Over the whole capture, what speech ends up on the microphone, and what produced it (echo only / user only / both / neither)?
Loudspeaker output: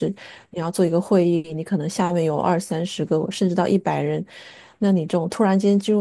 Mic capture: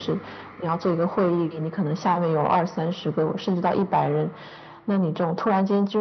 echo only